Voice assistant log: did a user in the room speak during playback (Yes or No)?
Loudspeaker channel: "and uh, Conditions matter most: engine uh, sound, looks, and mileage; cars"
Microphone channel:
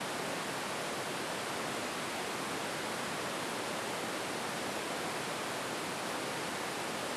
No